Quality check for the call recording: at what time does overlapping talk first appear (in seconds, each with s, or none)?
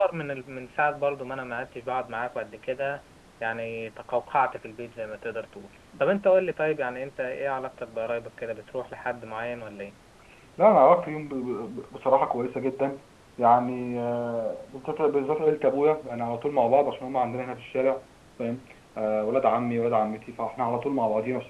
none